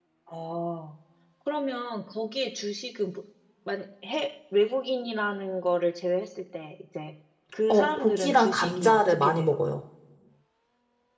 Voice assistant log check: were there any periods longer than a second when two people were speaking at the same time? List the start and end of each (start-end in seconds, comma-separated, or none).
7.7-9.6